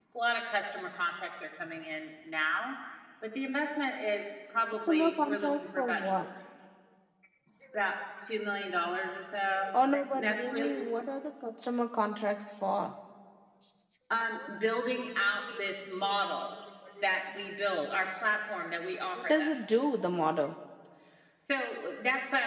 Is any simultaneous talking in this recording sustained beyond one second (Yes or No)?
Yes